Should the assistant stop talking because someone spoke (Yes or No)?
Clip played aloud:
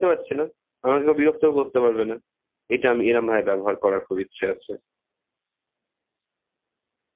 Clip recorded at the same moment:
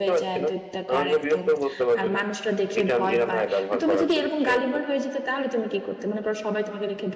Yes